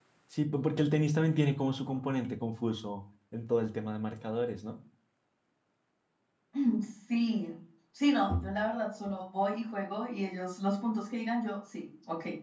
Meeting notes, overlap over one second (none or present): none